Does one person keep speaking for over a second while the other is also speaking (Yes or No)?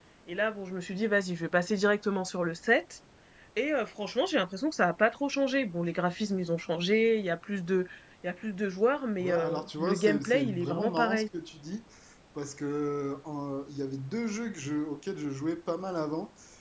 Yes